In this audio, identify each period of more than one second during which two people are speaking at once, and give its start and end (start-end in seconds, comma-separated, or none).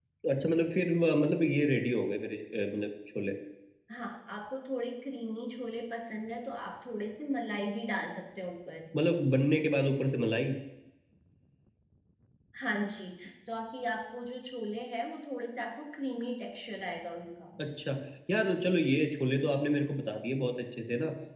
none